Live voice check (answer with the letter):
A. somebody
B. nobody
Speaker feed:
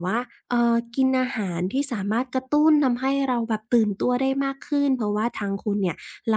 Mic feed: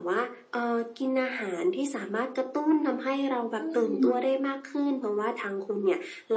A